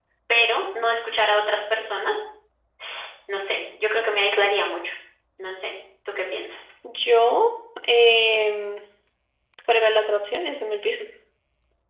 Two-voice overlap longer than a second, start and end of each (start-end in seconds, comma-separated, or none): none